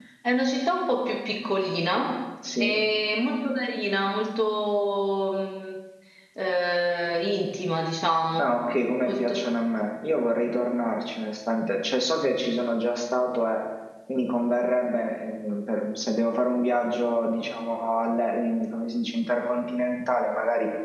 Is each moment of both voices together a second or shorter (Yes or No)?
Yes